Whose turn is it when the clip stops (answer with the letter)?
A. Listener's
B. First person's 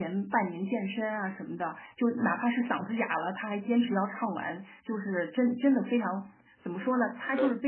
B